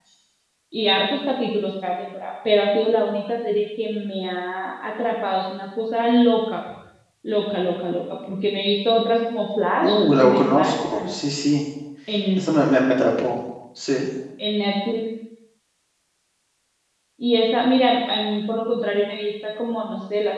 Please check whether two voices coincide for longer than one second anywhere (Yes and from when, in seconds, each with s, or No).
Yes, from 9.8 s